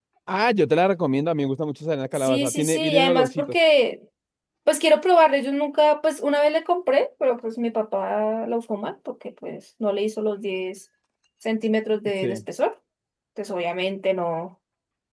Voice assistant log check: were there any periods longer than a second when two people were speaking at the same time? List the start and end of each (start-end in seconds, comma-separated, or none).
2.1-3.6